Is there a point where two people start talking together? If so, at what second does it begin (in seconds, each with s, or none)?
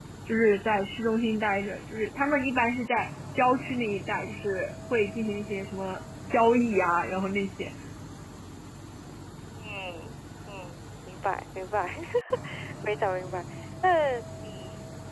none